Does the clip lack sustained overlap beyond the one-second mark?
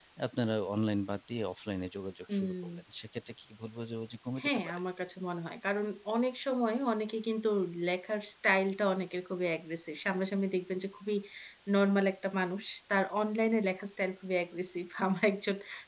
Yes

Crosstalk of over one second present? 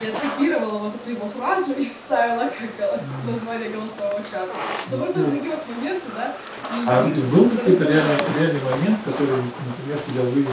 Yes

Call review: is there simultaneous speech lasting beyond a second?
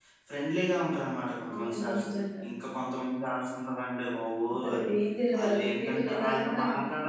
Yes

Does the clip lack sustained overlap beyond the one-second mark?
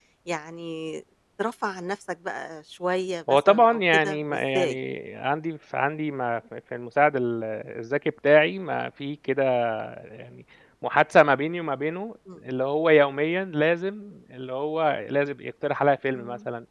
No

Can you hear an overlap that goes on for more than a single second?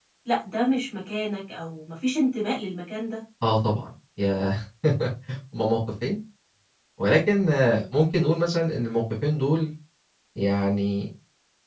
No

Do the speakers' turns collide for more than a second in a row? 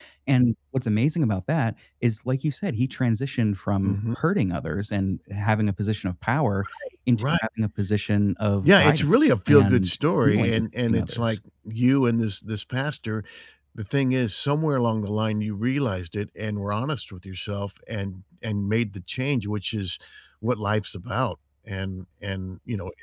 Yes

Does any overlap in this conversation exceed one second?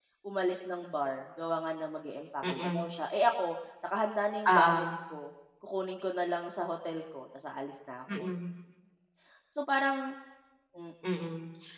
No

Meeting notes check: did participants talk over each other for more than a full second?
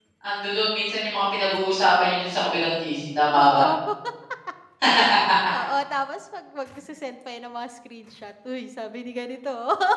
No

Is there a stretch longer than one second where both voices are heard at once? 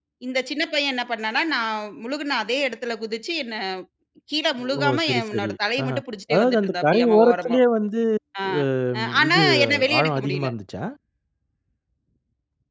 Yes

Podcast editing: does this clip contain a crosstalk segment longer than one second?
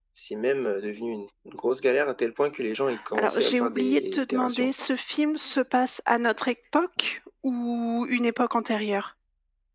Yes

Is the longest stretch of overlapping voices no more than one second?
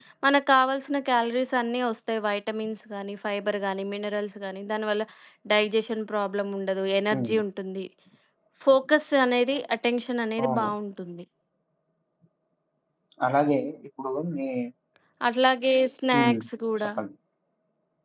Yes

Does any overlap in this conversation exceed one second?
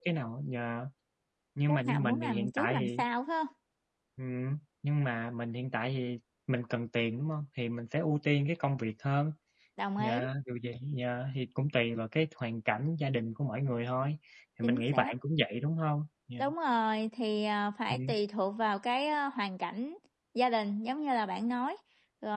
Yes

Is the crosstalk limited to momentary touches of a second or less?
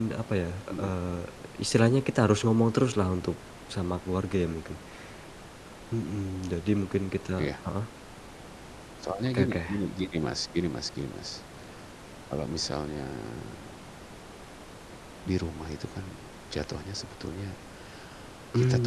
Yes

